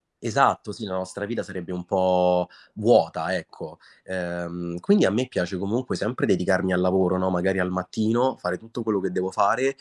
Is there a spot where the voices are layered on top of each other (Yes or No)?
No